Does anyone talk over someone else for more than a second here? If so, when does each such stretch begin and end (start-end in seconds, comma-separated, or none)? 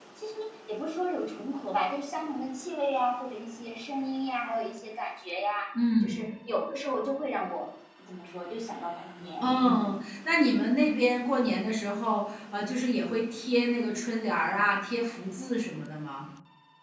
none